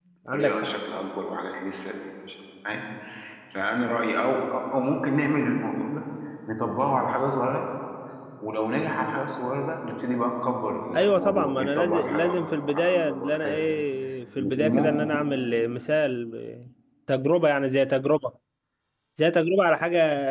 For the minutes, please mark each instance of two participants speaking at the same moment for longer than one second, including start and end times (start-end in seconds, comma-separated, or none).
10.9-13.6